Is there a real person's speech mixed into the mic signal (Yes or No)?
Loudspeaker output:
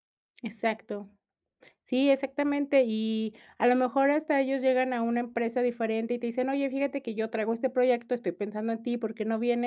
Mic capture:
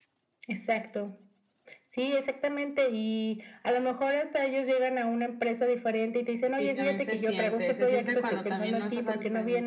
Yes